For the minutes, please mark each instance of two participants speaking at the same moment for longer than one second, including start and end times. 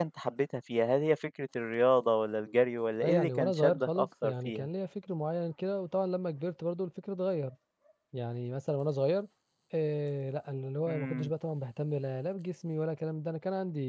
3.0-4.7

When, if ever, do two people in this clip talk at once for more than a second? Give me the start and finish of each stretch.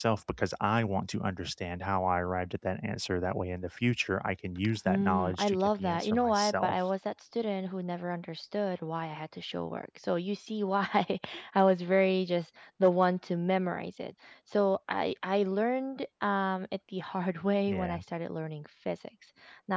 4.8-6.8

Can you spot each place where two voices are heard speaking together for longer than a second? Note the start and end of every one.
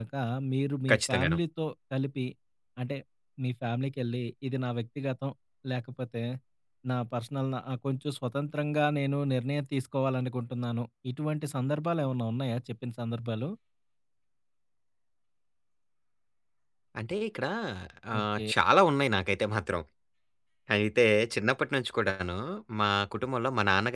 none

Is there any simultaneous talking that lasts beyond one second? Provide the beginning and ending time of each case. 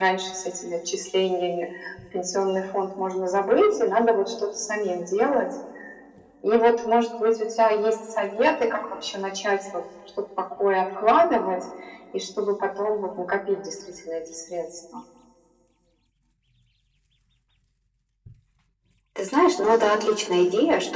none

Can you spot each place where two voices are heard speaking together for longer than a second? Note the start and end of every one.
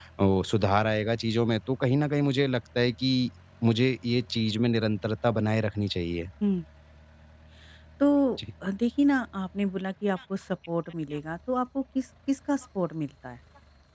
none

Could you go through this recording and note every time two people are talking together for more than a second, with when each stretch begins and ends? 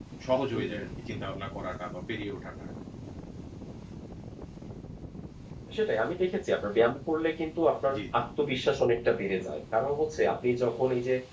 none

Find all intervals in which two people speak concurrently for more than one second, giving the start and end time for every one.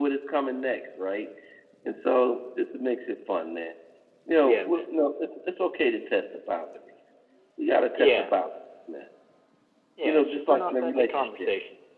10.0-11.5

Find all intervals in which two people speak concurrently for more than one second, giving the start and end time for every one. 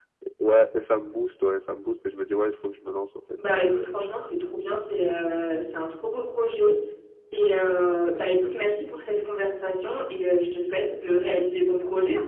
none

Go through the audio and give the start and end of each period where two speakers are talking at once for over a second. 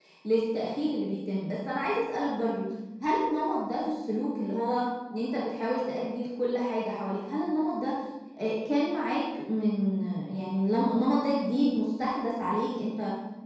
none

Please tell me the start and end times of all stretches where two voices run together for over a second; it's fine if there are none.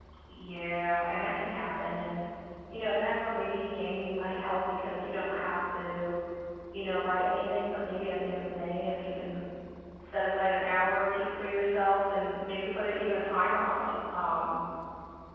none

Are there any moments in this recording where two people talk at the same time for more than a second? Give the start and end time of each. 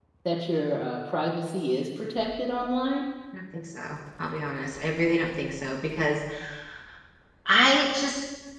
none

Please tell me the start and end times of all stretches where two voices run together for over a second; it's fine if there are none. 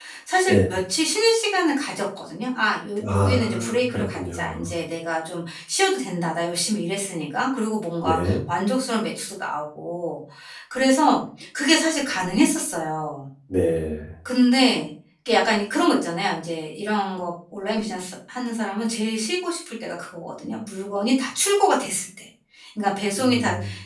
3.0-4.7

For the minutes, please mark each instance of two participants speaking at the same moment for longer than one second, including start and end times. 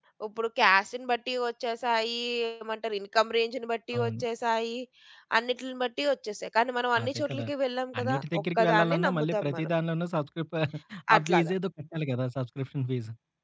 8.0-9.7

